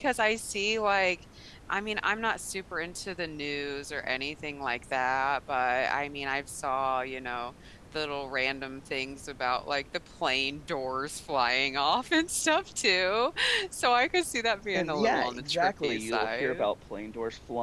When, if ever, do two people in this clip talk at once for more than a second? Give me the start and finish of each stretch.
14.7-16.7

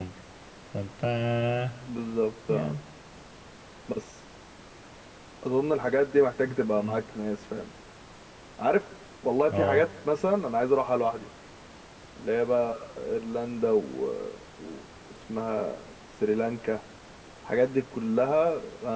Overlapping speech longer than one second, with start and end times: none

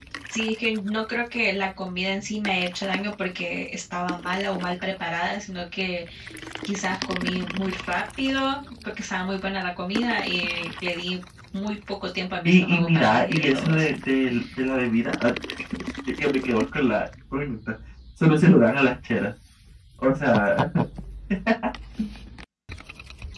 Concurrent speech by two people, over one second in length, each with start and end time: 12.4-13.9

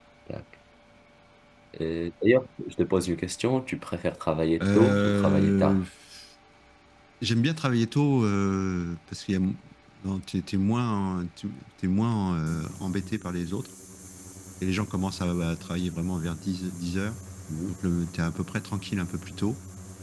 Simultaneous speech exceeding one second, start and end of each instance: 4.6-5.8

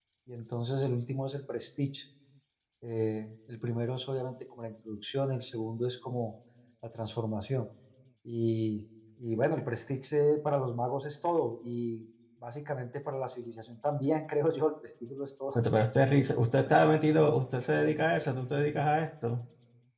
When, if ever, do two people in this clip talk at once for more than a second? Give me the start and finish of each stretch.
none

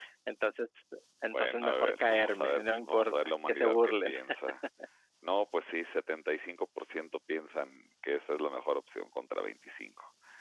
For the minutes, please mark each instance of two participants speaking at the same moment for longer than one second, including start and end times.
1.3-4.1

